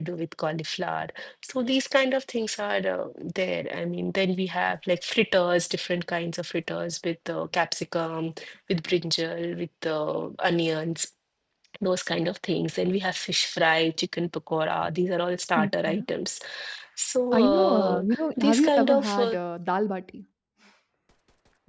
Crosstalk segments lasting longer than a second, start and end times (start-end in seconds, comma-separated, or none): 17.4-19.4